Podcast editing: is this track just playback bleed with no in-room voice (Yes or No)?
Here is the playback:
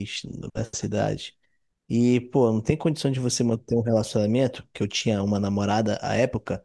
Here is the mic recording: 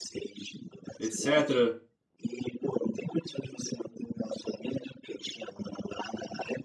No